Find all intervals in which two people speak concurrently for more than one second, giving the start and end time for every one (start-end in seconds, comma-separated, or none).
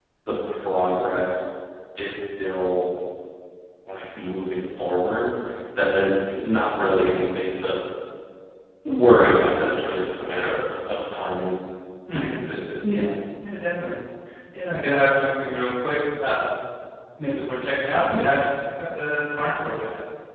none